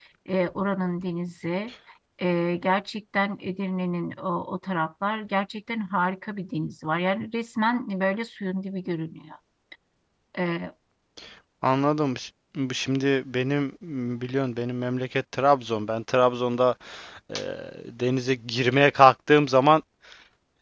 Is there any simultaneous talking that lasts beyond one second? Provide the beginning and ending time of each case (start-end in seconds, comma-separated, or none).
none